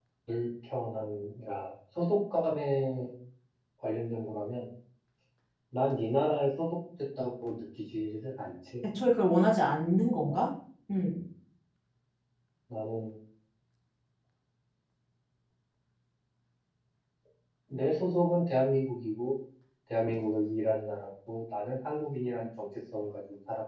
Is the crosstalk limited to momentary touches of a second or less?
Yes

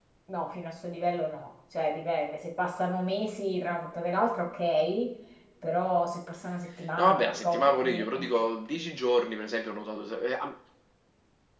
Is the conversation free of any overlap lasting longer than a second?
No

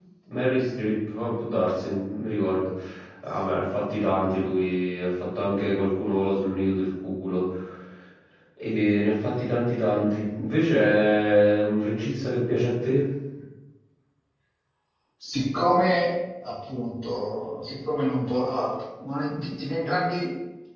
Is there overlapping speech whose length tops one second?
No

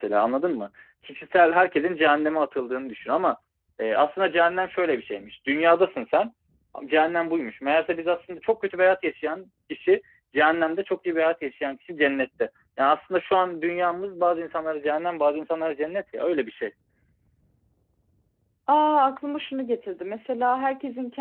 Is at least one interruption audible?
No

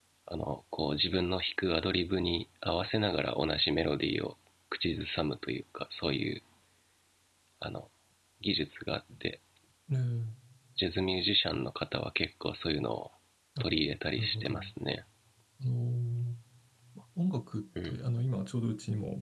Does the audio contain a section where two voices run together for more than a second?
No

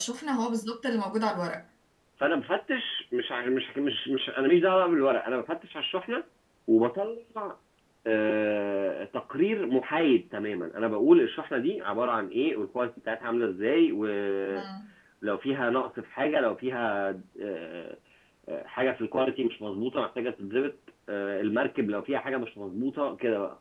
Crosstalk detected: No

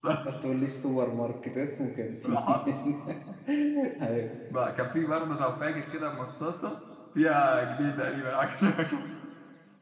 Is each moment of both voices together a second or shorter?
Yes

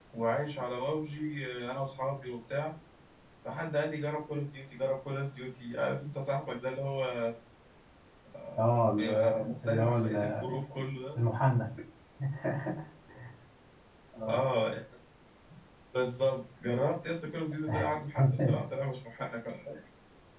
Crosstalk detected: Yes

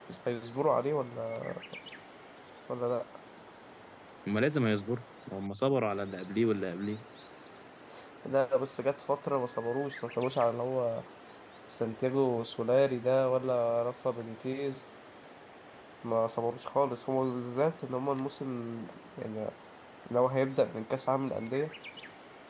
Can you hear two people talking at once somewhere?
No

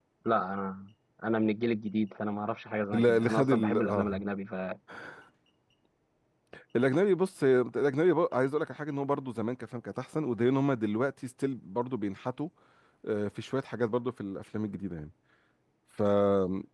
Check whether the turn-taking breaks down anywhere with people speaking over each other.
Yes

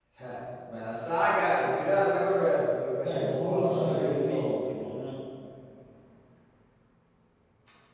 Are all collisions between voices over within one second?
No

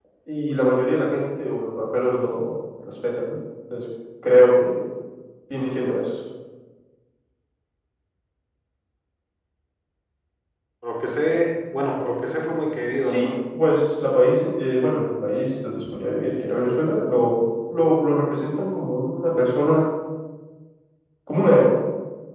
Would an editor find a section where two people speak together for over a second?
No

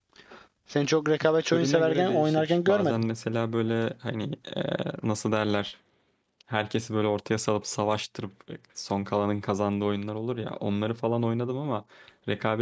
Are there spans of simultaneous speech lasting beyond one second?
Yes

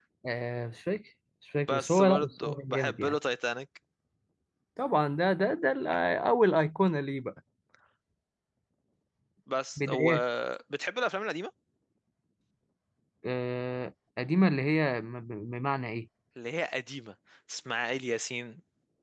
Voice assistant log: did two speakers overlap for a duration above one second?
Yes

